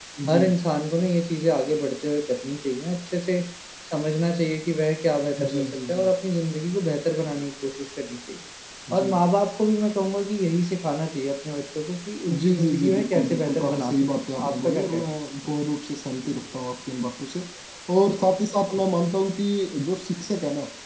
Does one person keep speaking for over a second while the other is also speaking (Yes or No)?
Yes